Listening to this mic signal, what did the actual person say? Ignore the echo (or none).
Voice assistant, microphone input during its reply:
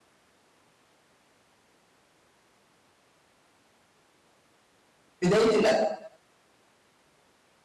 بداية الألف